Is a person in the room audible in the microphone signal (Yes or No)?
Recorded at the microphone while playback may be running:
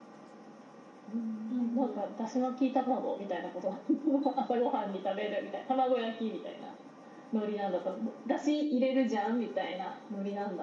Yes